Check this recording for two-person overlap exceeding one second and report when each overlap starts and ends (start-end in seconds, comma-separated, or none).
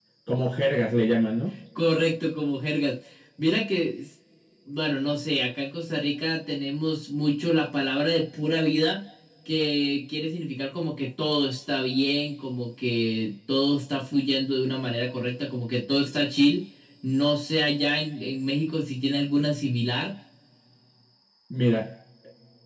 none